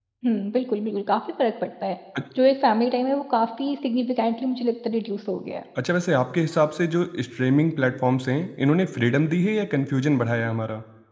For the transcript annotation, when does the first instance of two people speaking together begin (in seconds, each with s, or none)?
none